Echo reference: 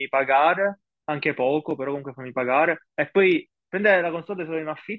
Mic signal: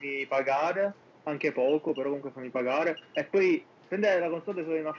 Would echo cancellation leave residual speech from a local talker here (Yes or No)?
No